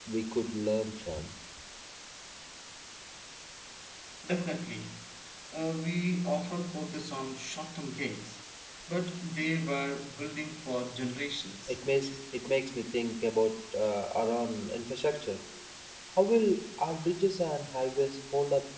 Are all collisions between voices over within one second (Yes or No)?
Yes